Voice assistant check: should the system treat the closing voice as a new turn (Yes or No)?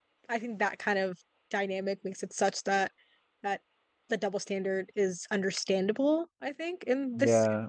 Yes